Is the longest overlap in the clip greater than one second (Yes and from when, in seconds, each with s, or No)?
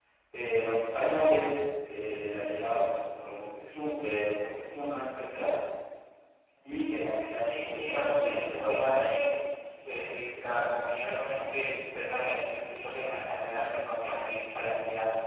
Yes, from 7.4 s